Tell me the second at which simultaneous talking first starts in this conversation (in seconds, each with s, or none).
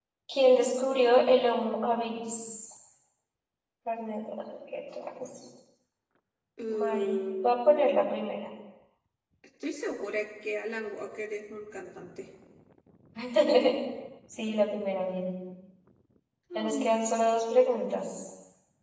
6.7 s